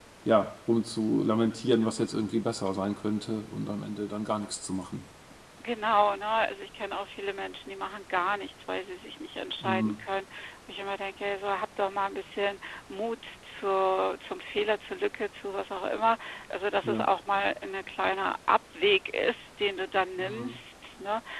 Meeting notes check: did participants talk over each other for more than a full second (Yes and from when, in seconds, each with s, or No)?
No